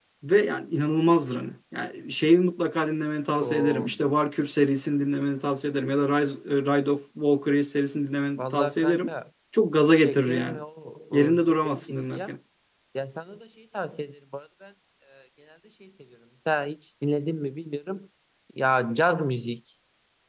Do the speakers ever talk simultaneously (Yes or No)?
Yes